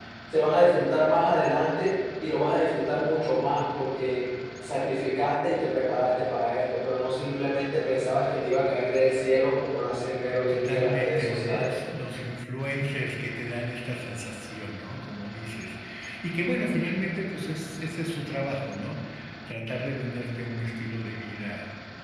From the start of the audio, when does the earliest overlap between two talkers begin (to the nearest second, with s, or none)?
10 s